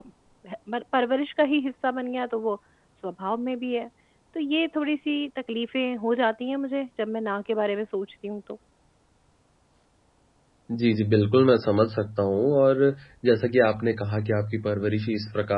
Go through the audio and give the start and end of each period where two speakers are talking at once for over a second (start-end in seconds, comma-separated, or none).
none